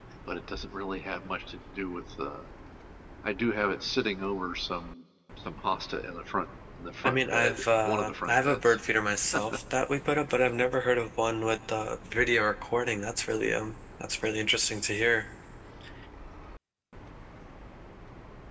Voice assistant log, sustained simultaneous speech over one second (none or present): present